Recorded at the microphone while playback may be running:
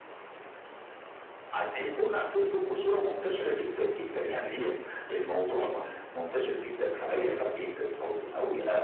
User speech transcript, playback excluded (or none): none